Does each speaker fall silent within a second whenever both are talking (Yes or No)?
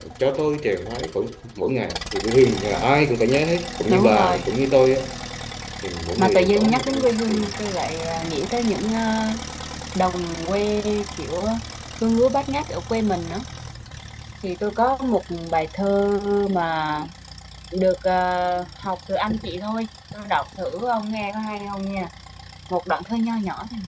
No